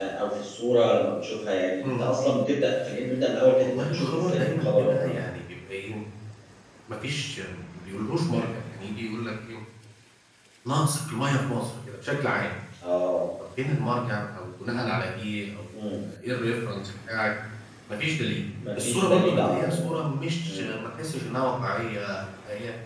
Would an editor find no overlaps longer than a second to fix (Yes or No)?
No